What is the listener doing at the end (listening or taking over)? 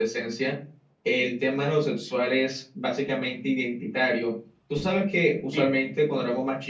listening